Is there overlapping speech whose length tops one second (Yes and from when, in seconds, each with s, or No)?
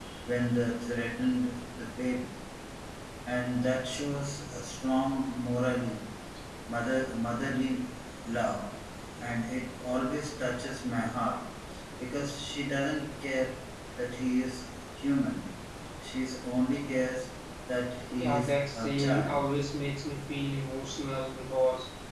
Yes, from 18.1 s